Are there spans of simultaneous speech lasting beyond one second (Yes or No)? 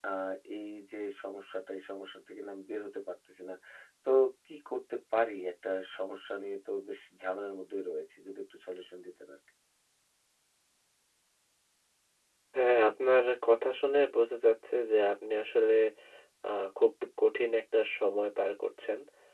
No